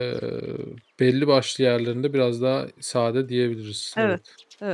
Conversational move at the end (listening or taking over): taking over